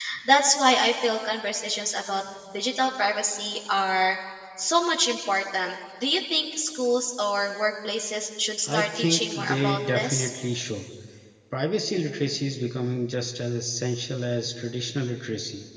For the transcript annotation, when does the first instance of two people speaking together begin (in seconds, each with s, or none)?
8.7 s